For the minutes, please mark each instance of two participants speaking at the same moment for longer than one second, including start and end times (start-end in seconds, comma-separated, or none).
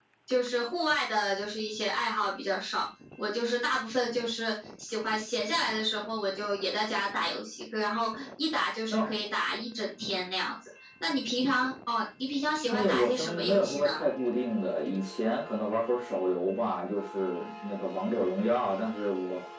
12.7-14.0